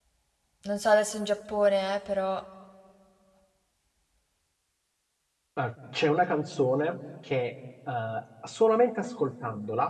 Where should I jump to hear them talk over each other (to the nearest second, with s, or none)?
none